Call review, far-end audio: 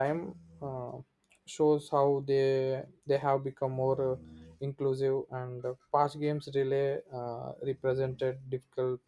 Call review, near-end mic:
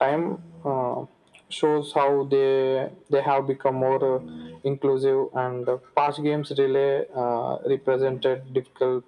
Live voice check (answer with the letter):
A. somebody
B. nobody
B